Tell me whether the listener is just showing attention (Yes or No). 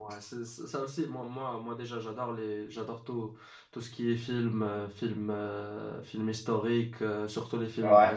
Yes